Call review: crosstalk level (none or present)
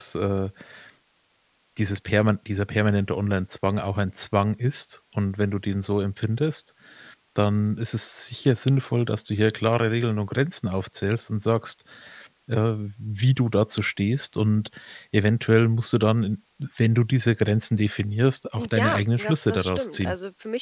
present